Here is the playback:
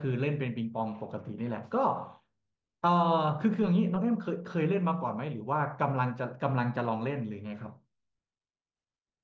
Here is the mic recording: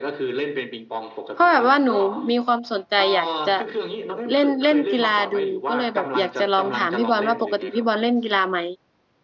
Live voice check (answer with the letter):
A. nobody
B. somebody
B